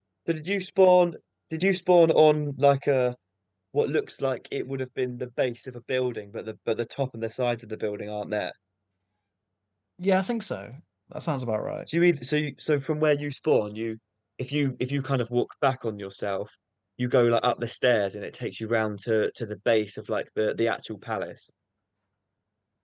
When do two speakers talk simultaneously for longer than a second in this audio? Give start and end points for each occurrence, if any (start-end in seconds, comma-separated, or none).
none